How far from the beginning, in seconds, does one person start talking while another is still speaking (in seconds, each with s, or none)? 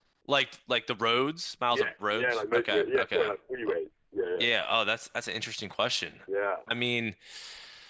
1.7 s